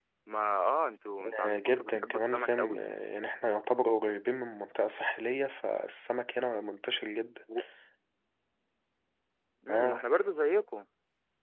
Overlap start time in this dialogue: 1.4 s

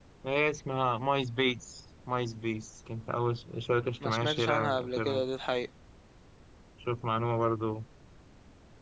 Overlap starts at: 4.0 s

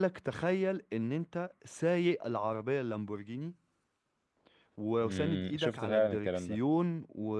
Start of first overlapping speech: 5.0 s

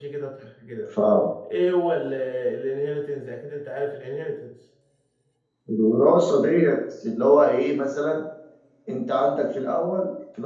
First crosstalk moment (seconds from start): none

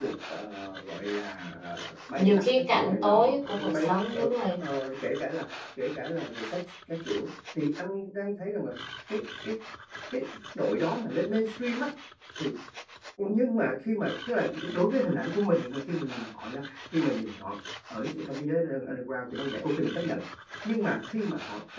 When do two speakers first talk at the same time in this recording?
2.2 s

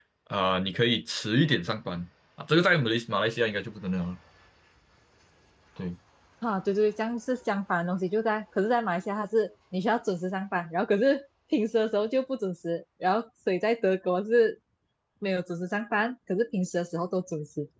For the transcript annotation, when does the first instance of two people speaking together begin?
none

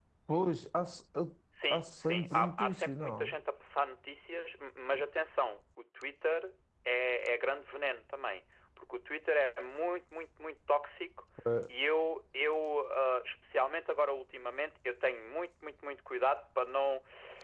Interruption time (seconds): 1.6 s

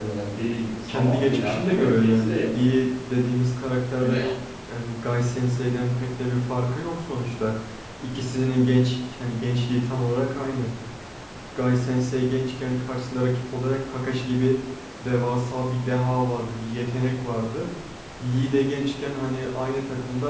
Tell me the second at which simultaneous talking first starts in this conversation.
0.9 s

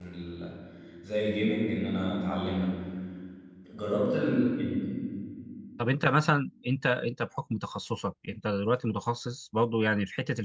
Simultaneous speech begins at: none

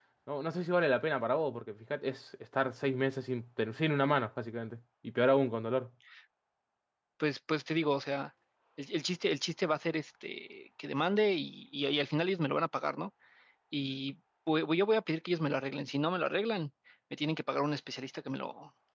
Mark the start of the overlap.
none

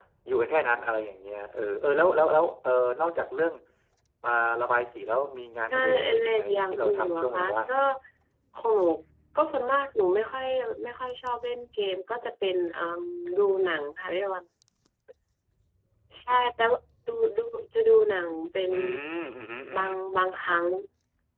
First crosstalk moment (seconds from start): 5.7 s

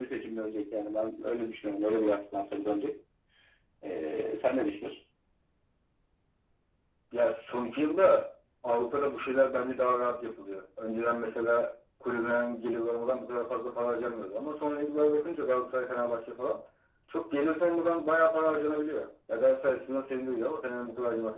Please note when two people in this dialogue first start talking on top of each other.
none

